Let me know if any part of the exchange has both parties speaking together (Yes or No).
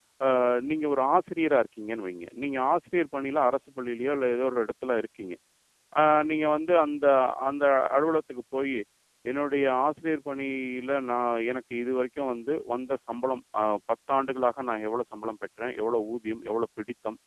No